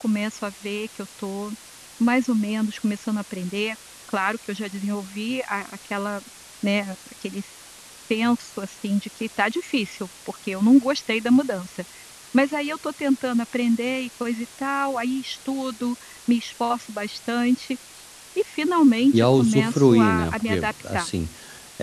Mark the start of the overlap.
19 s

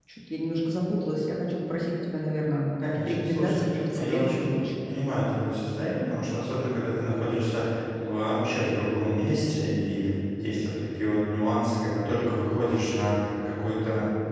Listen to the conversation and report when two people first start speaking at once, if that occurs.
3 s

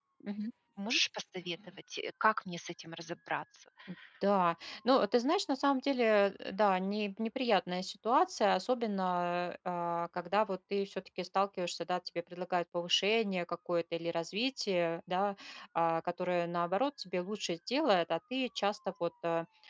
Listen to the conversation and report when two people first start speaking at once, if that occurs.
none

